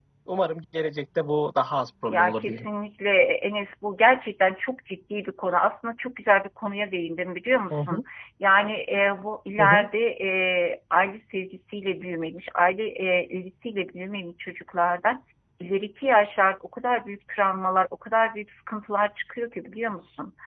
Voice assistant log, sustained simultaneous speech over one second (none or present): none